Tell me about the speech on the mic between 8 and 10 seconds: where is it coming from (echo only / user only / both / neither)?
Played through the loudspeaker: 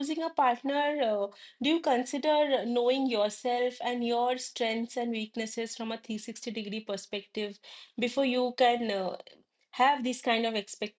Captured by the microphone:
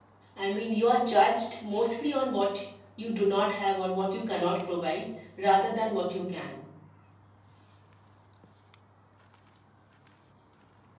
neither